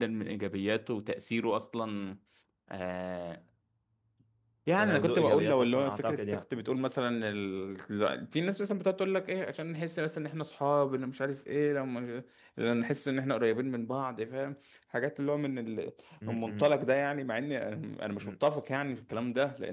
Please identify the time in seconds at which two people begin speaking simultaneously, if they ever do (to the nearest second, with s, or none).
5 s